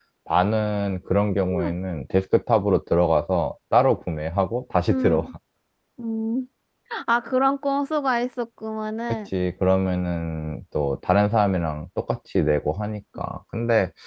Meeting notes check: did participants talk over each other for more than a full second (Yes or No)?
No